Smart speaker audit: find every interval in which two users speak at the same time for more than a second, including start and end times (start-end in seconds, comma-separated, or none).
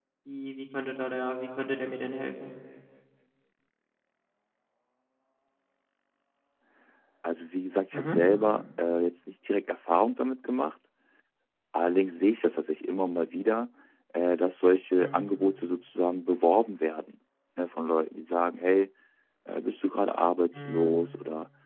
none